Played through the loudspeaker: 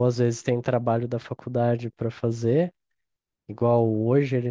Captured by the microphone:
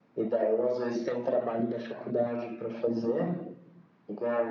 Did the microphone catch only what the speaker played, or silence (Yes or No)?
Yes